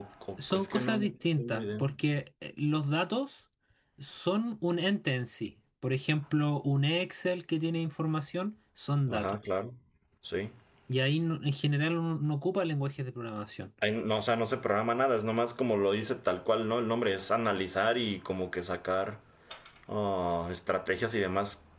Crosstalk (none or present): present